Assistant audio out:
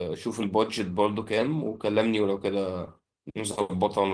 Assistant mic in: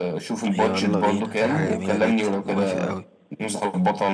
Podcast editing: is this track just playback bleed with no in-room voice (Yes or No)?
No